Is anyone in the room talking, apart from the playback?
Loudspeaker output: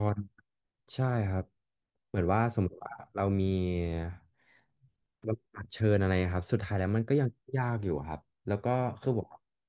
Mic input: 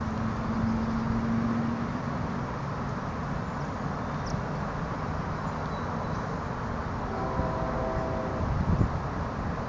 No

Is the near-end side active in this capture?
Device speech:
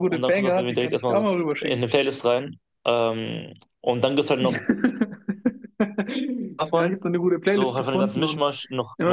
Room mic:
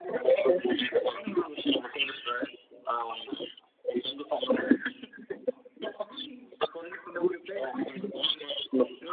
No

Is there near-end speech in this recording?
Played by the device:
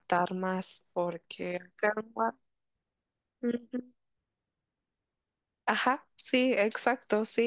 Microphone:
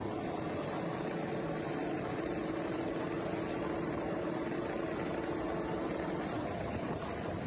No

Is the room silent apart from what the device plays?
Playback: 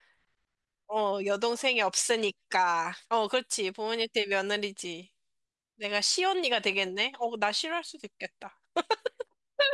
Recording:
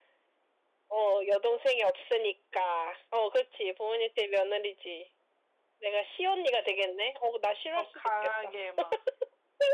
No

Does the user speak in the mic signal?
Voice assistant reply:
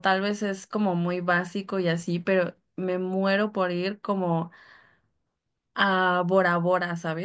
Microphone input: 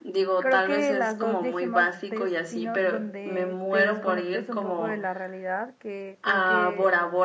Yes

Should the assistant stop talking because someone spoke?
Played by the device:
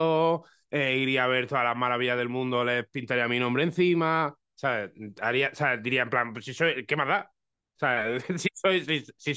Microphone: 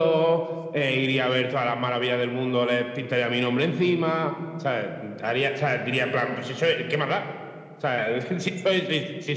No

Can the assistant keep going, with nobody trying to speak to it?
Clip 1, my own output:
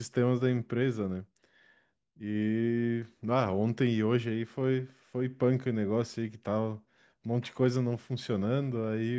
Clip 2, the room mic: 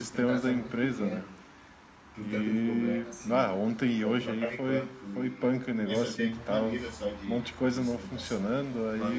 No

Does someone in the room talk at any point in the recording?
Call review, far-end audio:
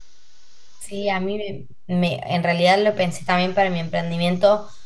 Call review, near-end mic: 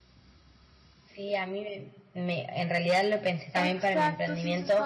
Yes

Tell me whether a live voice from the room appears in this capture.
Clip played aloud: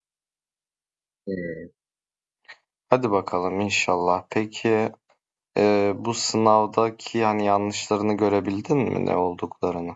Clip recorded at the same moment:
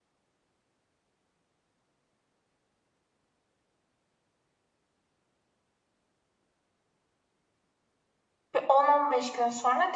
Yes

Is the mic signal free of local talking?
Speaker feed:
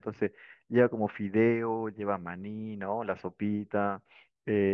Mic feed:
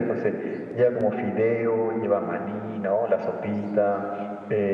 Yes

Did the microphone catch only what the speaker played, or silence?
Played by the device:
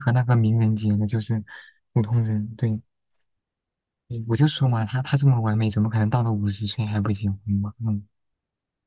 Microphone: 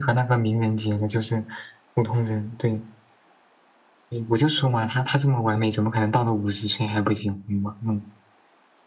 Yes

